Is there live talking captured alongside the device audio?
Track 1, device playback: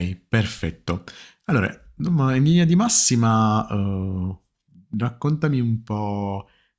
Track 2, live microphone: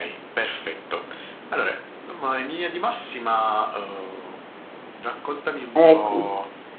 Yes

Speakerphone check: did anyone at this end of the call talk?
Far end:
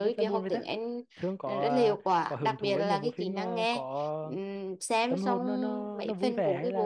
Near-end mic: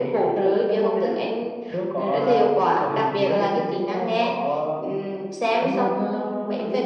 No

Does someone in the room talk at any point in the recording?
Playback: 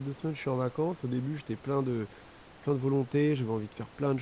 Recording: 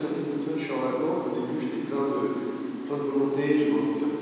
No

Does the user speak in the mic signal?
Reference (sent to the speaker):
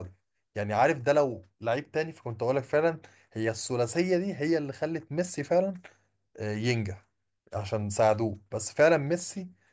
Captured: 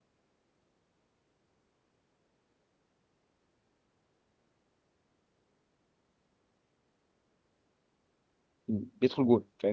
Yes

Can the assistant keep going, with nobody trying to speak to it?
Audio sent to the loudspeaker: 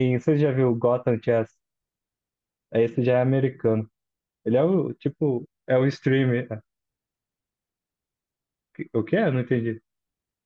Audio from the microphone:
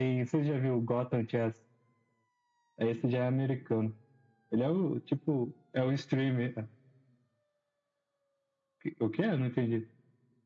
Yes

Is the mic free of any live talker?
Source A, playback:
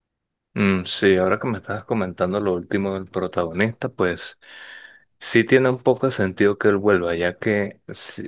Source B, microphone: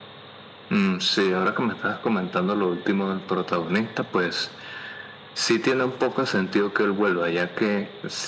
Yes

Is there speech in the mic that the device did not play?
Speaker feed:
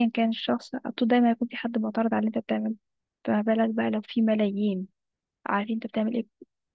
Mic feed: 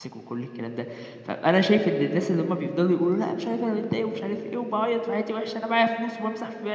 Yes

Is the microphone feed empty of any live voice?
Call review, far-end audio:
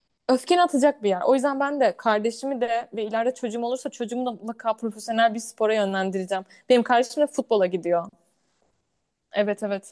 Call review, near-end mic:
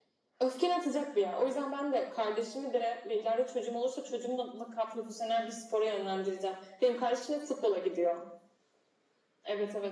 Yes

